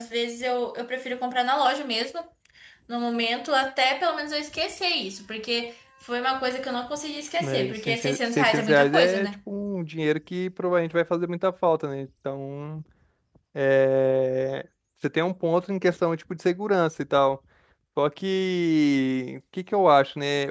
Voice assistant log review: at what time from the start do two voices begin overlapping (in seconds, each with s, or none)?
7.4 s